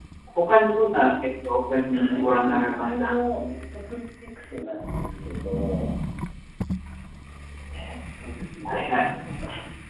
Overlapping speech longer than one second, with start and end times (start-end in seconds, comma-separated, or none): 1.8-3.1